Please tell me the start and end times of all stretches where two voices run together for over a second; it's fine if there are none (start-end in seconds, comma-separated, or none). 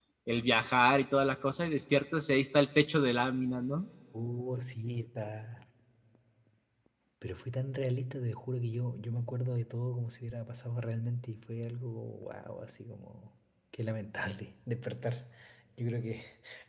none